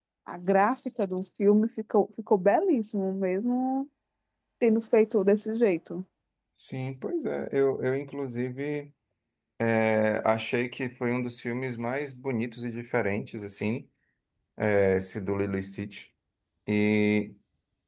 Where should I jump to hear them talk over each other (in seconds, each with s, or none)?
none